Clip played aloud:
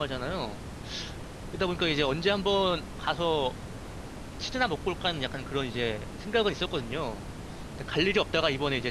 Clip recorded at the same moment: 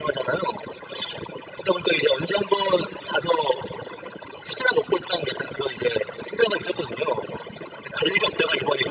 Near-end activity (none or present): none